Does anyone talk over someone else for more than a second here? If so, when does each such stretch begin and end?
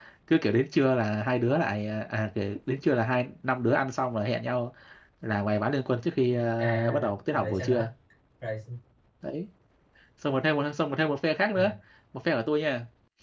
6.6-7.9

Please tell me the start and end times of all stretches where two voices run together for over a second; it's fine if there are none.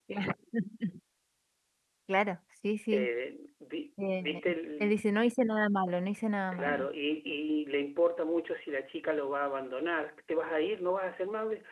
none

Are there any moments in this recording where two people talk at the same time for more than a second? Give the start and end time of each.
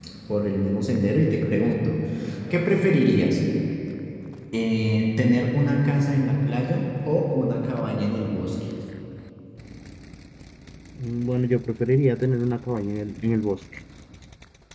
none

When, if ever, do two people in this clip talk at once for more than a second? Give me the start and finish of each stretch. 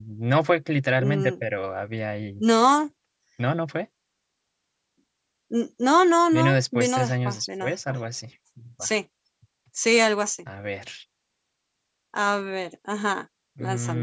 6.3-8.0

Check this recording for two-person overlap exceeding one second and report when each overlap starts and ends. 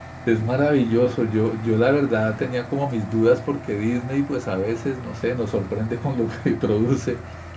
none

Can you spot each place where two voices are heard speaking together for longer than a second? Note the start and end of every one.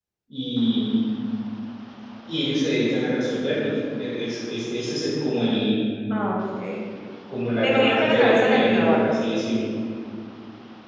7.6-9.2

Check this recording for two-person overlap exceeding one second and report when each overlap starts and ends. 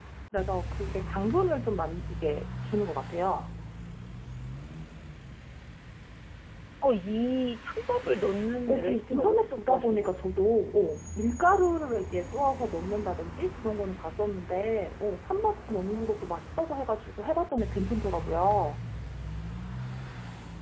8.7-10.2

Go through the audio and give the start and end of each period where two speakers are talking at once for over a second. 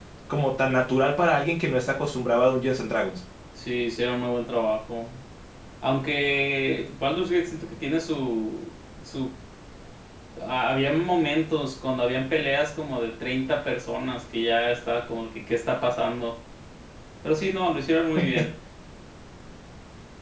none

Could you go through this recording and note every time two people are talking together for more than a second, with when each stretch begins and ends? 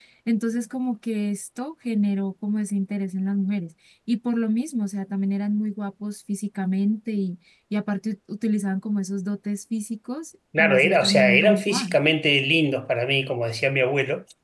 10.6-12.0

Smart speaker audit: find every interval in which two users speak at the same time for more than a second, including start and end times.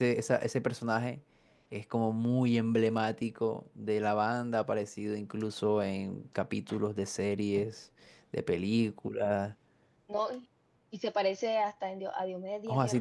none

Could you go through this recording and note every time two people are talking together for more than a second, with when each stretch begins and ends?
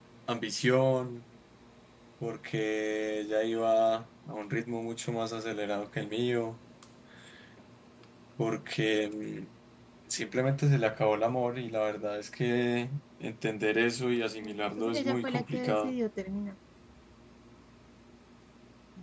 14.4-15.9

